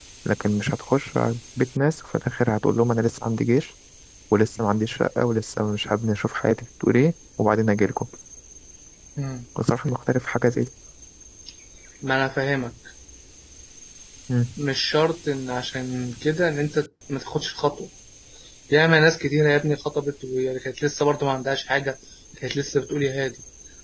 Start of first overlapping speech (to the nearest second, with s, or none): none